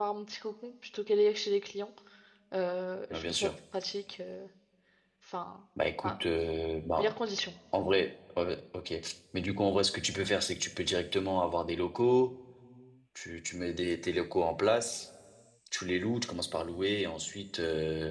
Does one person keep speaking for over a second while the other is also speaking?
No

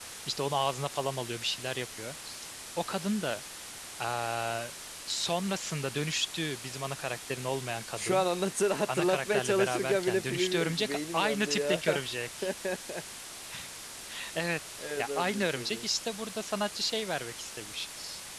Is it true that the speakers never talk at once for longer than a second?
No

